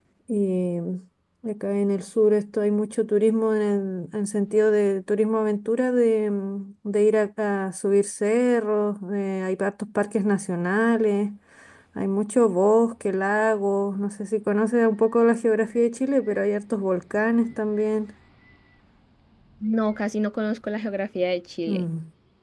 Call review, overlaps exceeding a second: none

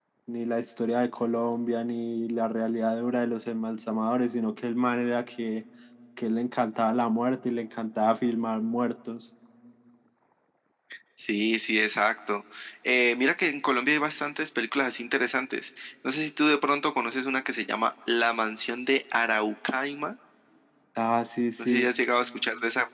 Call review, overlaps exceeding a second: none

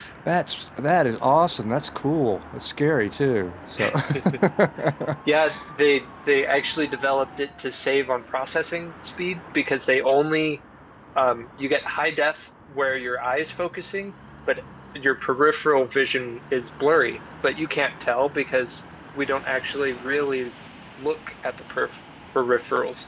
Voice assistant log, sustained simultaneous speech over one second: none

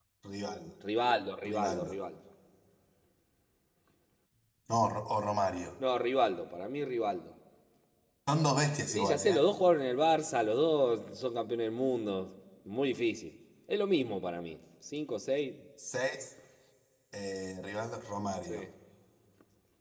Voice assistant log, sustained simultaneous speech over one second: none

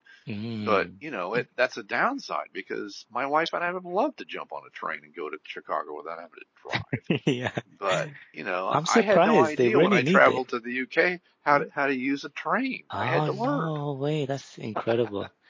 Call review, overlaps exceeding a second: present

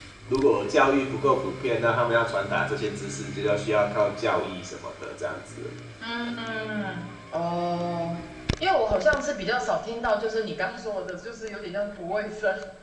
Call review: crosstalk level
none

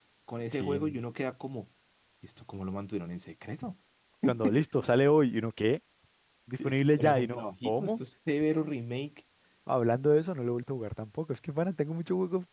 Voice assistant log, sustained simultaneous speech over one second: present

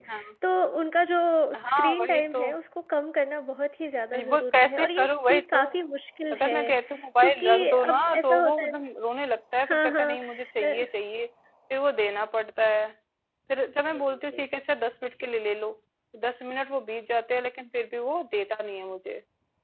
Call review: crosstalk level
present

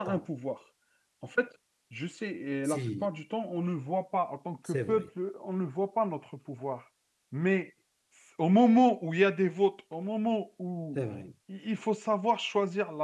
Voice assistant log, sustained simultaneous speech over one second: none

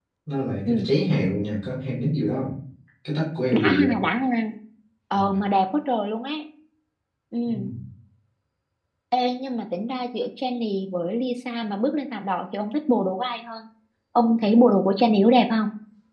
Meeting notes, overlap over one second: none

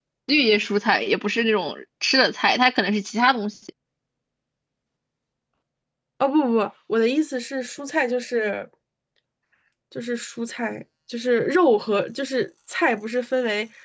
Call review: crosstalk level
none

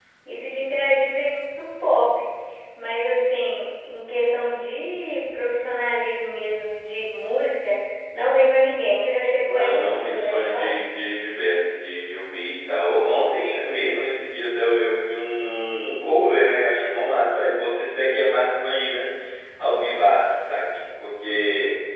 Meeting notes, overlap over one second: present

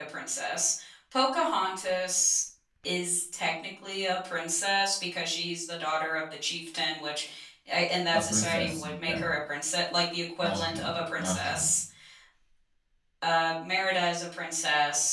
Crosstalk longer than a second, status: present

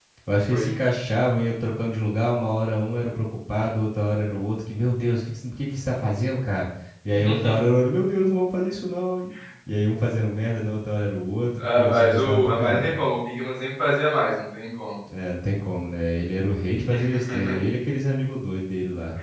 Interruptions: present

